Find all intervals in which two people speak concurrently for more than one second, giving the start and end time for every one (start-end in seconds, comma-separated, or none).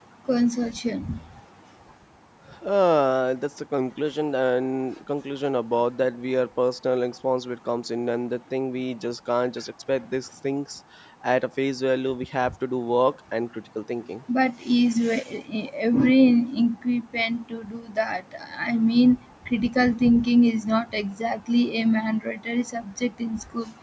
none